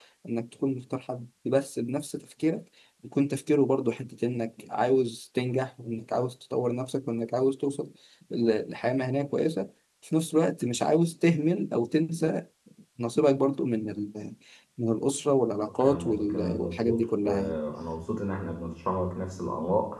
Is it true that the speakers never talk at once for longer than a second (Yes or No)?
No